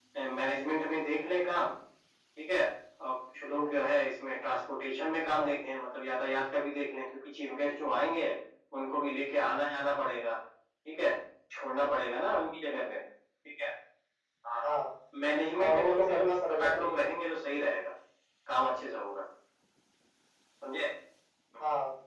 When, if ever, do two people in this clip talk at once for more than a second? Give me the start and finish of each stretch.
15.7-16.9

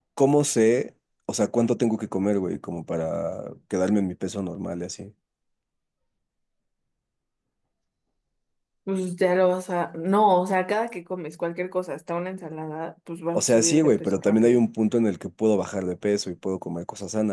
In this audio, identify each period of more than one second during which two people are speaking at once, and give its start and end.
13.4-14.6

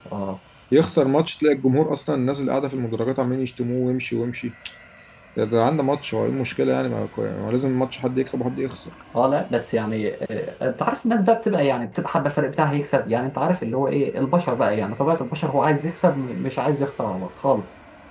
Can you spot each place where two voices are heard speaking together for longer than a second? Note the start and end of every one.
none

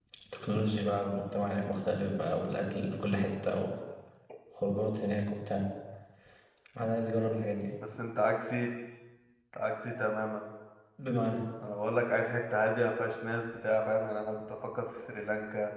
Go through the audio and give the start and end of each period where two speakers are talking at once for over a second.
none

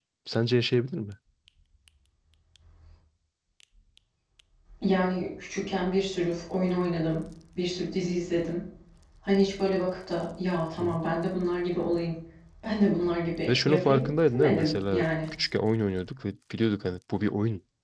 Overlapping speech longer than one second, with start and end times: 13.5-15.0

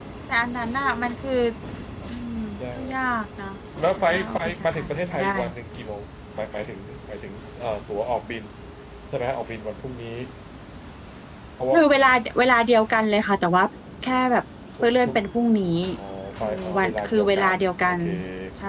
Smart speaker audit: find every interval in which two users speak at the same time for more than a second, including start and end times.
4.0-5.3, 16.4-18.0

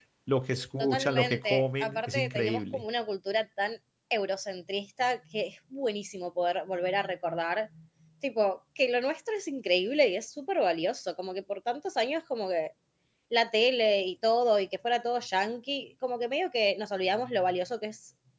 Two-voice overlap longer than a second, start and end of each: 0.8-2.9

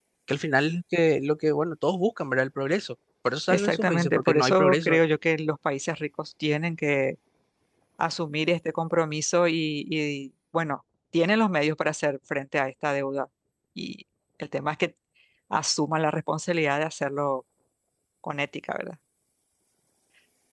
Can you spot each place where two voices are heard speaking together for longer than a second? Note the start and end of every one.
3.5-5.0

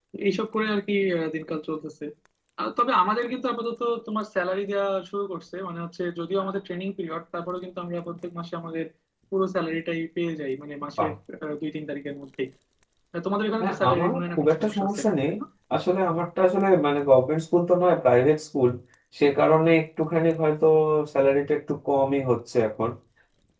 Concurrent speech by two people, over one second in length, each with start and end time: 13.6-15.3

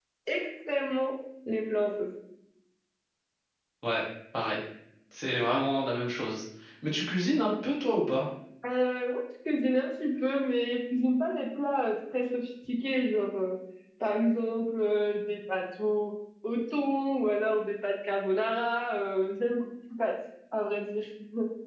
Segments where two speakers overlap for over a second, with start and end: none

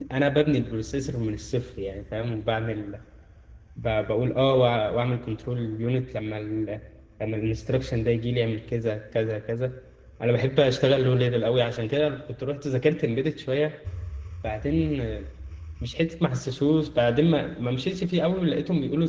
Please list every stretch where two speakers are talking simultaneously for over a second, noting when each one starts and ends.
none

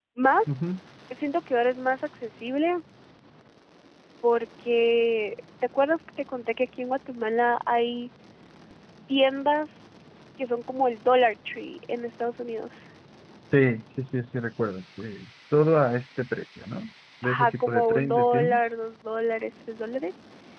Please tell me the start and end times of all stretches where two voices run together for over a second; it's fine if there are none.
17.2-18.6

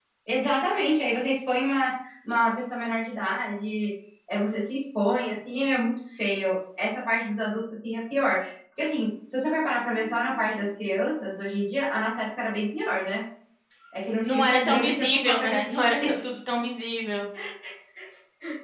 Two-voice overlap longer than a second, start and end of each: 14.2-16.1

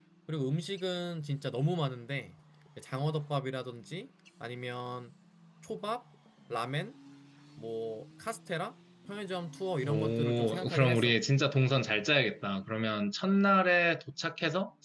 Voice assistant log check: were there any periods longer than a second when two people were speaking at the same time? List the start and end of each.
9.8-11.2

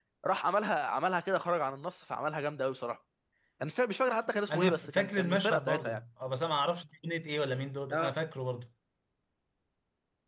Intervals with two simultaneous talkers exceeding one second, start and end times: 4.5-6.0

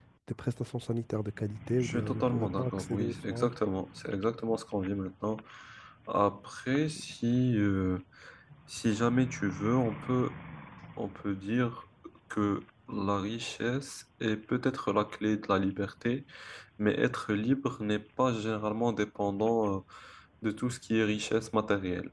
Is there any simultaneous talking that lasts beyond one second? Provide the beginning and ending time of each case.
1.8-3.5

